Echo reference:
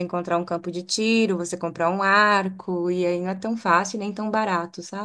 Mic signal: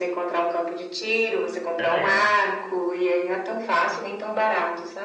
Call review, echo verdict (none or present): present